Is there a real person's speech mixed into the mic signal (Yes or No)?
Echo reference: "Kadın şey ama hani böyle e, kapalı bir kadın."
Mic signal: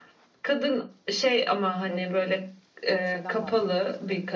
Yes